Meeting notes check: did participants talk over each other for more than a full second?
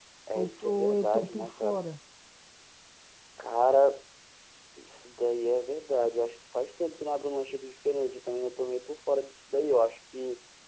Yes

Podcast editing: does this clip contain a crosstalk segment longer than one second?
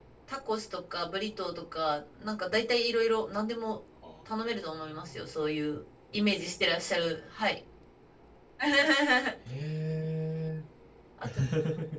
No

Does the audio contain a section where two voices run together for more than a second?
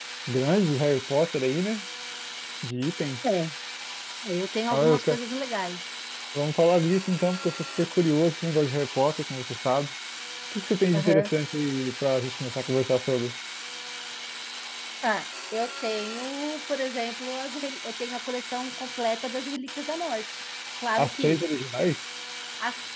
No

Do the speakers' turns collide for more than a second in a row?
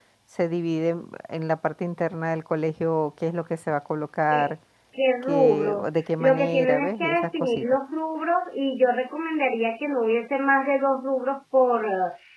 Yes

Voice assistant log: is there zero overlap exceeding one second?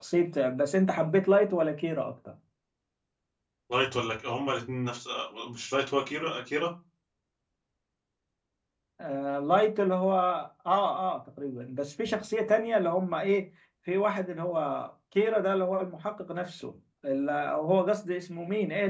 Yes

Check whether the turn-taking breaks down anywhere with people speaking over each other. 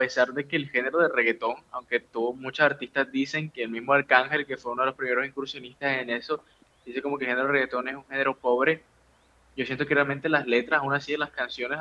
No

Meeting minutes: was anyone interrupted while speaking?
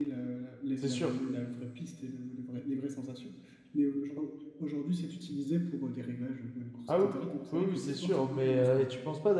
Yes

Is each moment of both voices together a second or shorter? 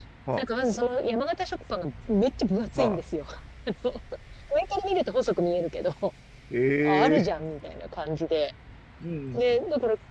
Yes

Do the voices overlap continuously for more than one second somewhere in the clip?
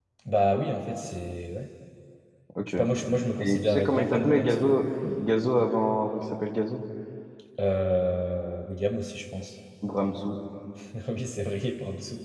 Yes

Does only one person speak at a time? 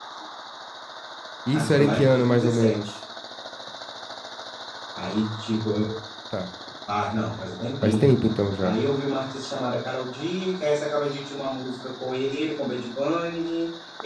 No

